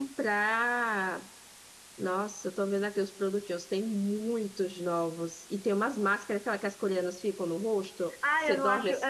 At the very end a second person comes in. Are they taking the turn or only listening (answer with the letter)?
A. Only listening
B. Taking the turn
B